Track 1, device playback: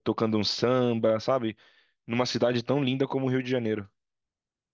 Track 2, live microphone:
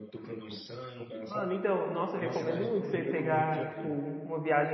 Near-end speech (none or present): present